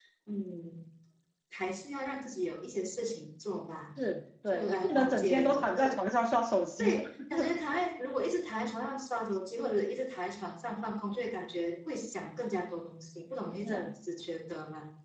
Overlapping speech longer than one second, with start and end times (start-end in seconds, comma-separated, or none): 4.5-6.0